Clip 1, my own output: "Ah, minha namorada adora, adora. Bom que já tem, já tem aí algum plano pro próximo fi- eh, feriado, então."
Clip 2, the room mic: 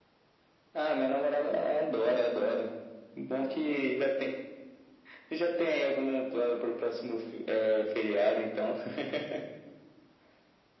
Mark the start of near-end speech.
none

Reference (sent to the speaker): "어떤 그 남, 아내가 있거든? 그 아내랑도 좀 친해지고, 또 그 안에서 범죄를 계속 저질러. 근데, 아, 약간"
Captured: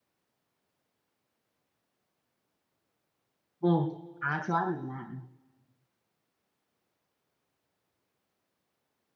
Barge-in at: 4 s

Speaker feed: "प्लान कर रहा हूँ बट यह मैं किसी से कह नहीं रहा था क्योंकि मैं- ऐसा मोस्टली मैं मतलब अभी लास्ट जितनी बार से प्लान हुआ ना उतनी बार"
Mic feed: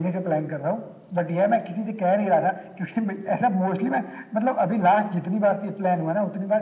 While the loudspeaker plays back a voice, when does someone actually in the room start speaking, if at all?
none

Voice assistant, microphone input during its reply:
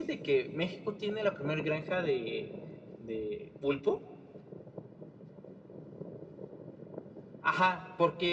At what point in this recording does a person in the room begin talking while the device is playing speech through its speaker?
none

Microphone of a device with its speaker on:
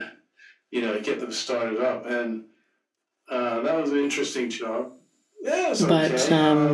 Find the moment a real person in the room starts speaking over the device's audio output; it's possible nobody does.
6 s

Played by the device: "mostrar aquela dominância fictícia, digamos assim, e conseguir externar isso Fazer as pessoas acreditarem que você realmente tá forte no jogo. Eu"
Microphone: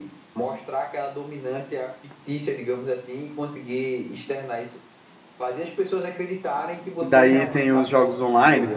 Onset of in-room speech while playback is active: 7 s

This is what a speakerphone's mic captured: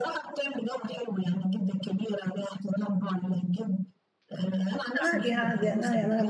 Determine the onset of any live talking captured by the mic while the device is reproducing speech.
5 s

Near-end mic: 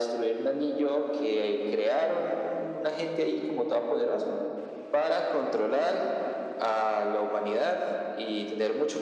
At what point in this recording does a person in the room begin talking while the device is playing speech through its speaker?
none

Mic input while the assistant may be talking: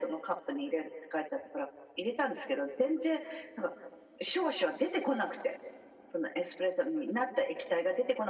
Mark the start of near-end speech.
none

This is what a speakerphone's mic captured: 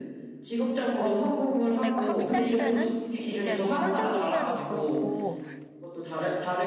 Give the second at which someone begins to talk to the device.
1 s

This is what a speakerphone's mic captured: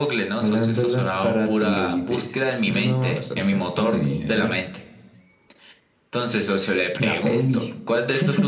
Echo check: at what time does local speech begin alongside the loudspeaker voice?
none

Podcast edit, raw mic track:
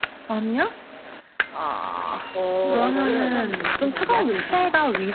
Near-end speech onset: 3 s

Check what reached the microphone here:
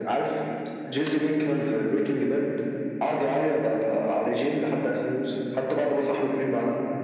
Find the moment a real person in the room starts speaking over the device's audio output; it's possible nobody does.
none

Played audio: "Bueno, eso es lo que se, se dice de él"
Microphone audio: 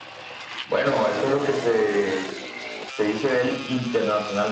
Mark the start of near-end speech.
none

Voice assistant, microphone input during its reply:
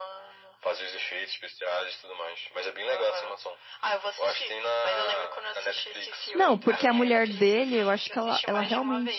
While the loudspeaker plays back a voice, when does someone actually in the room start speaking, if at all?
6 s

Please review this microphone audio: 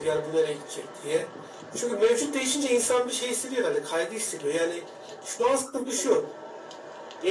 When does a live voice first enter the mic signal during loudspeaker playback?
none

